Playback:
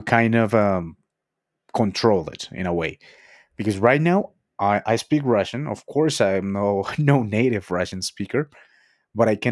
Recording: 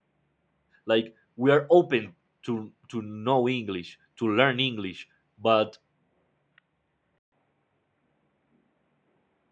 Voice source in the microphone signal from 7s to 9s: neither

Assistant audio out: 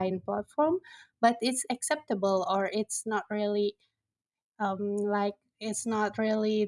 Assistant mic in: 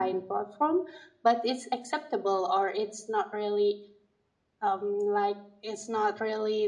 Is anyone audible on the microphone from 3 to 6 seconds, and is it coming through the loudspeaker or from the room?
echo only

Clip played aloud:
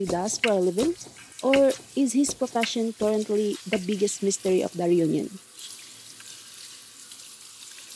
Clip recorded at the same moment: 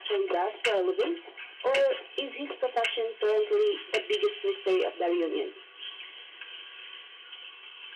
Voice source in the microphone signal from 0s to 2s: echo only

